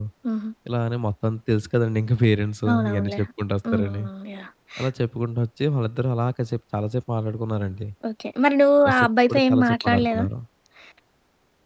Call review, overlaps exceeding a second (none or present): present